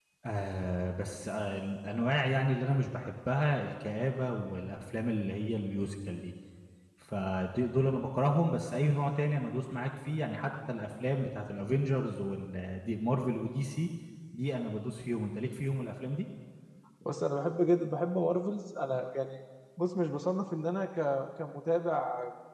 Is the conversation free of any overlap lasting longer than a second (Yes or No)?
Yes